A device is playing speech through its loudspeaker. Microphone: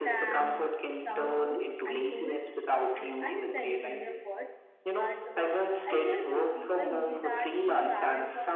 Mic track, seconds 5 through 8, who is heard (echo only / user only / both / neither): both